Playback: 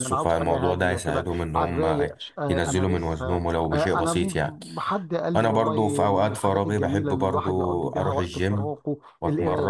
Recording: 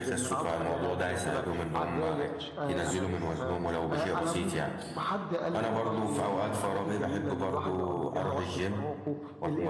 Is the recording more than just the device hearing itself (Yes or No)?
No